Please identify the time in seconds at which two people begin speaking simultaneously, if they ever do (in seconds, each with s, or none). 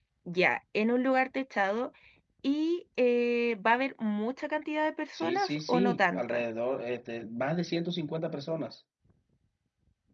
5.1 s